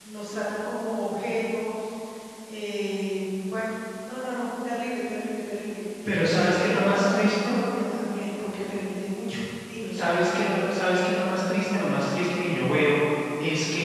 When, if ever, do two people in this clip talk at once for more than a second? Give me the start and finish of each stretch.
6.3-7.6

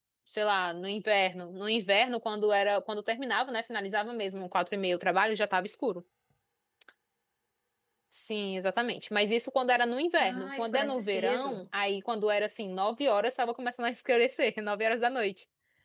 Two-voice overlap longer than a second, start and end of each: 10.2-11.6

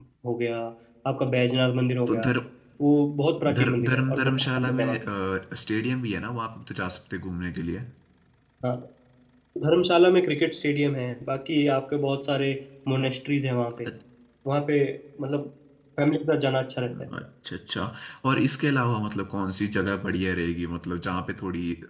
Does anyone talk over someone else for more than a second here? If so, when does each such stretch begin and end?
3.6-5.0

